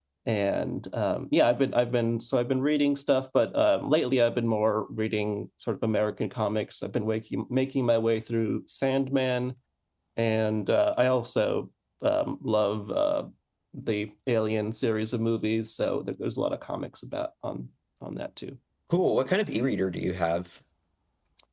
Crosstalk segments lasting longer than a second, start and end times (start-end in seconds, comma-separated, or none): none